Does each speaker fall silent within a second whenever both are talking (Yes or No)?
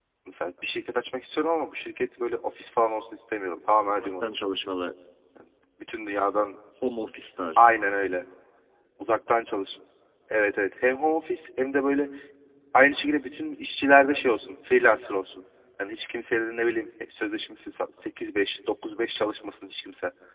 Yes